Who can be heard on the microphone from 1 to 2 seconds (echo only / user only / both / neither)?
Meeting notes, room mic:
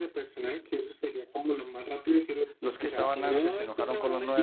echo only